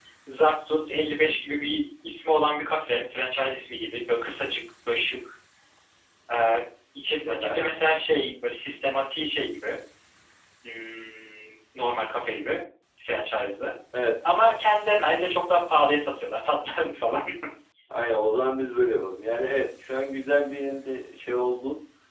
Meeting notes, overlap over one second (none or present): none